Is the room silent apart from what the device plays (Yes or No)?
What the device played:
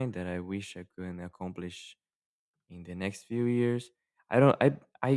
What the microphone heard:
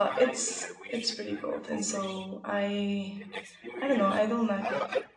No